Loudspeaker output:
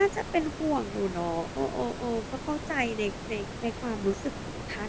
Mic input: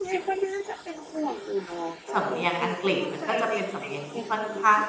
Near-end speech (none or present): present